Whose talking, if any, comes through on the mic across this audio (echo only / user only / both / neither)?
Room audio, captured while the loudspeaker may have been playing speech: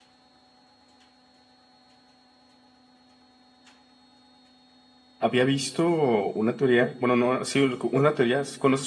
user only